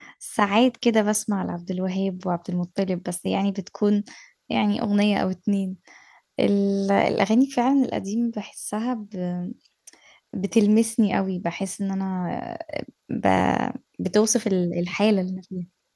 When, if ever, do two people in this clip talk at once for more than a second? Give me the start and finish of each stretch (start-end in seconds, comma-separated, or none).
none